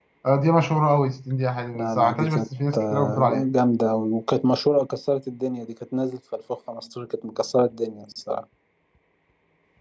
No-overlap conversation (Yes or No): No